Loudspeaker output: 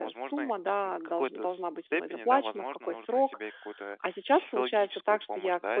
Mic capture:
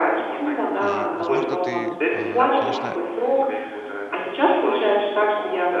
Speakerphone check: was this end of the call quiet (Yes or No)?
No